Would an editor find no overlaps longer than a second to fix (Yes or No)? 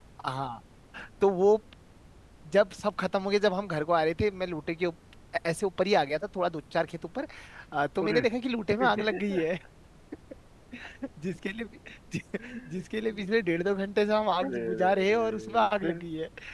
No